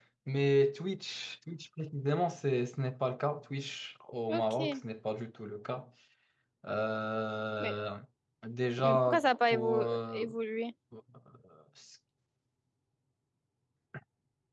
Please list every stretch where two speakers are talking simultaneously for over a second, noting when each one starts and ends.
8.8-10.2

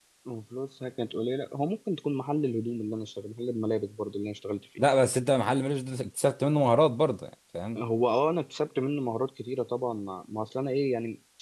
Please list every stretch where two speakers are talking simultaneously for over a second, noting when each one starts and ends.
none

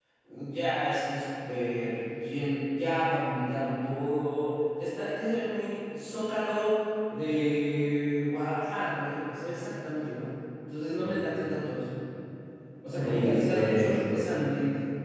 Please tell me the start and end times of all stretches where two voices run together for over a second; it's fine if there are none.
12.9-14.2

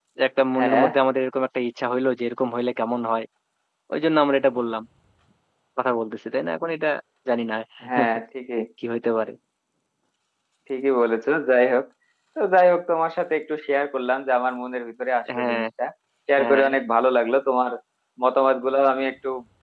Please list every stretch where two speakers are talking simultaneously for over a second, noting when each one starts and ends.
none

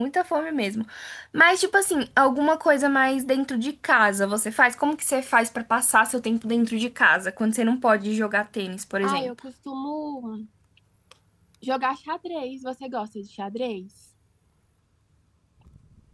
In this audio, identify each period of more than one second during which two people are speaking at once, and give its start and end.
none

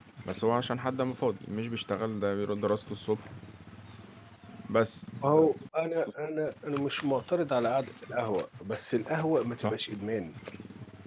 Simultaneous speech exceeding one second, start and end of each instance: none

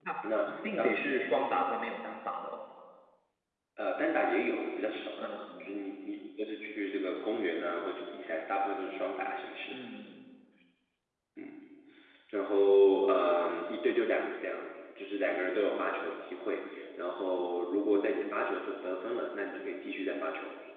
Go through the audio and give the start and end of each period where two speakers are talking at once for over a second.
none

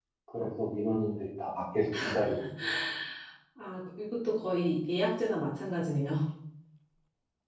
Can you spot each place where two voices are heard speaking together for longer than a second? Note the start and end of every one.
none

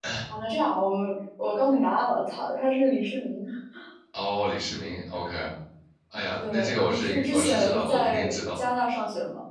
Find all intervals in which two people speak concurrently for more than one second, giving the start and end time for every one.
6.5-8.6

